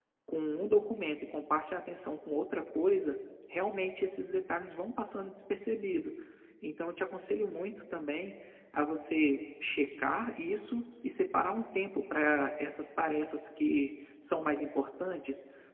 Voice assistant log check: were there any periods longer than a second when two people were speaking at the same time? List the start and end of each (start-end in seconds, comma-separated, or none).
none